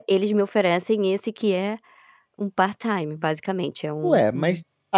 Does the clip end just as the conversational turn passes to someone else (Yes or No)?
Yes